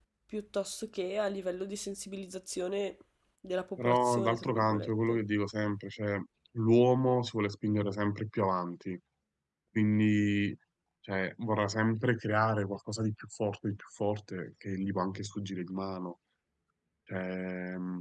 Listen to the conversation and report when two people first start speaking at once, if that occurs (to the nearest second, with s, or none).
4 s